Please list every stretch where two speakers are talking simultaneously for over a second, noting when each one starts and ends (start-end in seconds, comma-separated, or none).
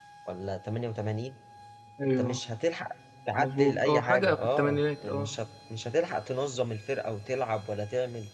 3.3-5.3